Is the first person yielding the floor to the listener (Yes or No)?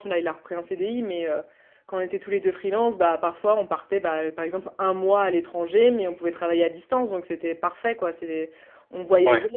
No